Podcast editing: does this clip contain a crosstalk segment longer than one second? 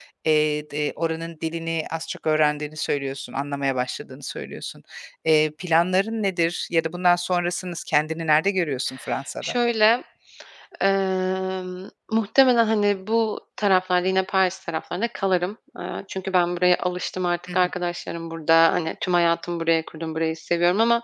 No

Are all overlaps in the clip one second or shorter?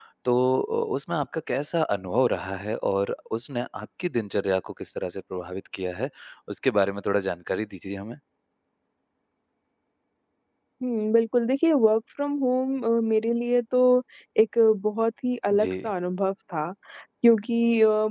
Yes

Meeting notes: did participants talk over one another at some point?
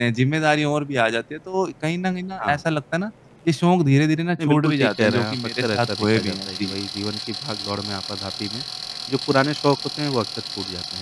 Yes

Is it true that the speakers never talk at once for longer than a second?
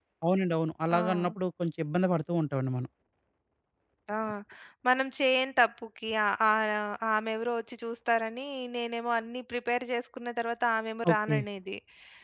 Yes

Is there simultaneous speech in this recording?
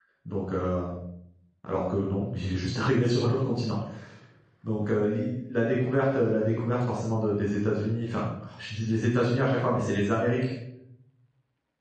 No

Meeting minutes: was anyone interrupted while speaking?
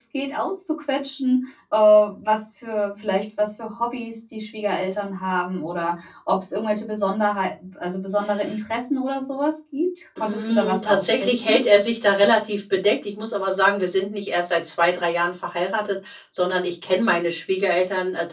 Yes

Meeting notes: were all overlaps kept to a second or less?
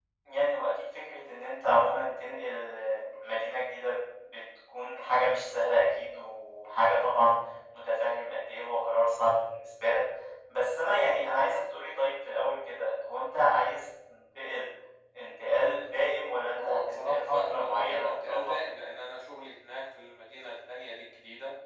No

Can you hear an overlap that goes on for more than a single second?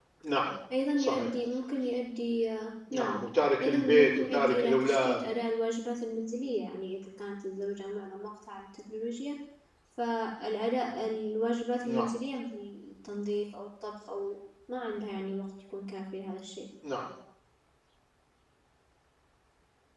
Yes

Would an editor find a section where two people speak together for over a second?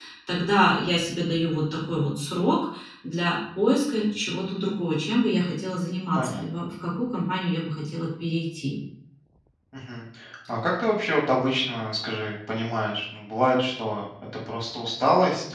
No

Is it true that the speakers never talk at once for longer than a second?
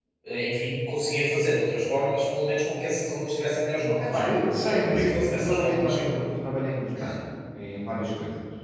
No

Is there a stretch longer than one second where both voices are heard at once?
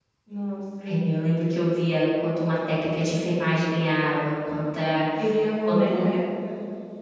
No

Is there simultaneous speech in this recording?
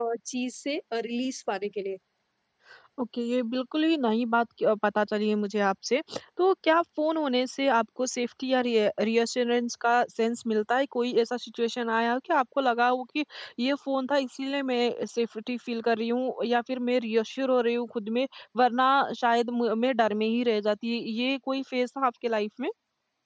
No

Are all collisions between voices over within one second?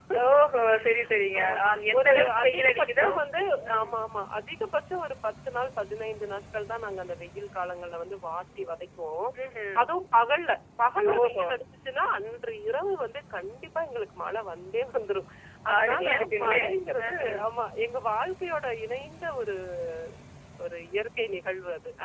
No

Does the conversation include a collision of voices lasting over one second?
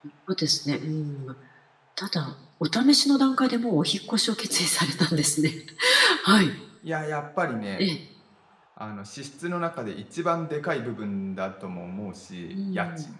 No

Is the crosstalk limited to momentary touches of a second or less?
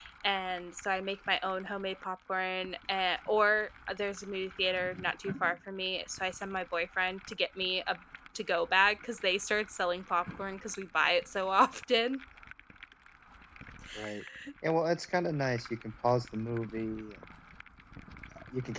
Yes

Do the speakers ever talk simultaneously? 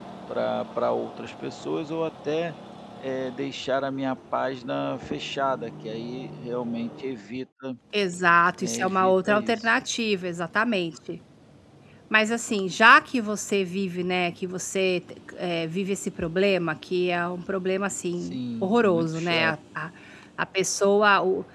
Yes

